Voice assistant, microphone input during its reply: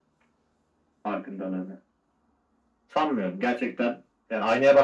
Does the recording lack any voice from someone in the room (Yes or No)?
Yes